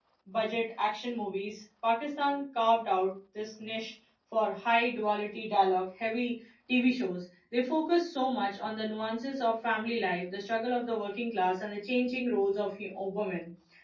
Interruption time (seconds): none

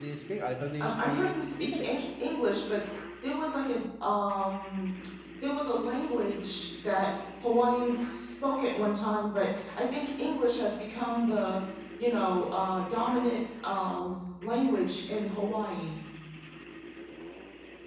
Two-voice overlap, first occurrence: 0.8 s

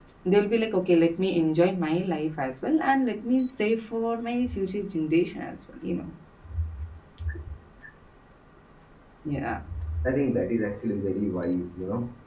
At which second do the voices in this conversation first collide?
none

